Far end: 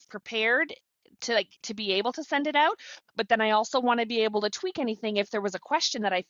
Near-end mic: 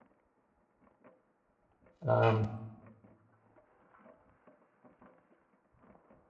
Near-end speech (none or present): present